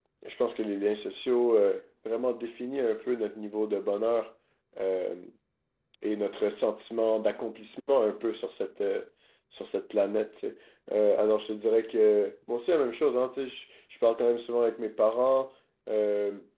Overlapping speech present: No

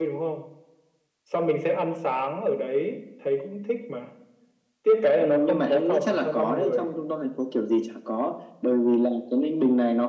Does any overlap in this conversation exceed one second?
Yes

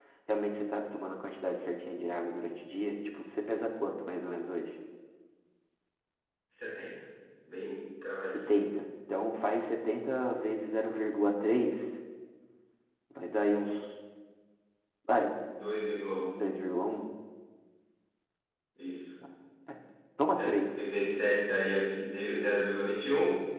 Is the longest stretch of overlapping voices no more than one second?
Yes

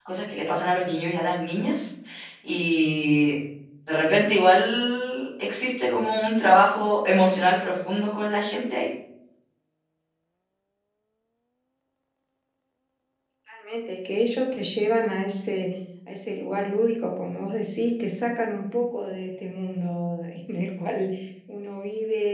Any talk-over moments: No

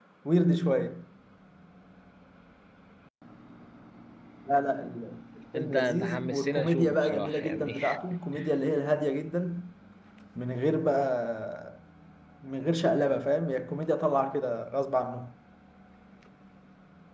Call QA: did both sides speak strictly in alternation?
No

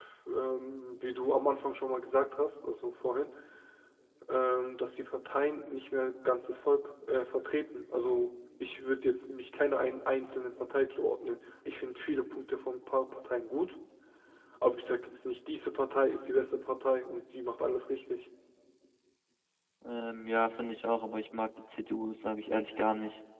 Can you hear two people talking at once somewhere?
No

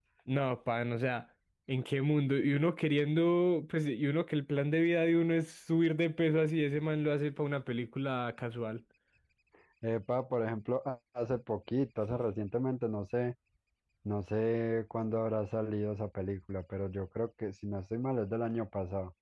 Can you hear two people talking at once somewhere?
No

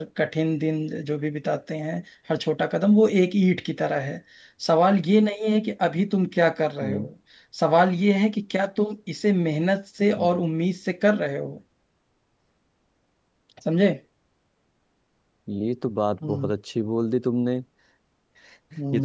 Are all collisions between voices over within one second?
Yes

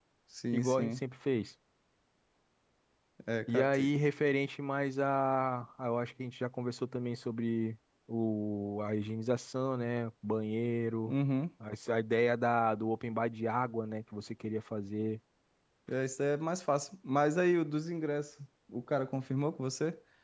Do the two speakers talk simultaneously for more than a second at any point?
No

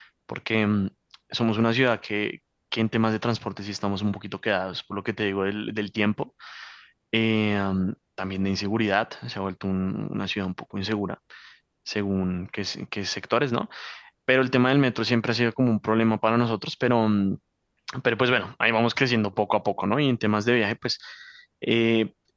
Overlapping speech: No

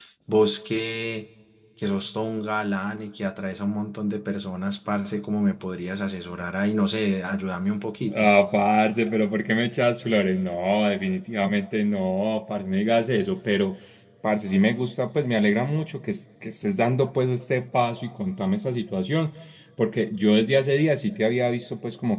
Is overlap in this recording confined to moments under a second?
Yes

